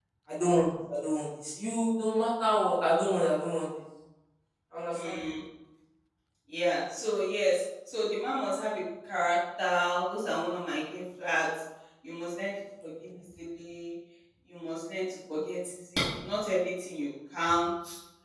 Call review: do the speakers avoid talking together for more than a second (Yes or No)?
Yes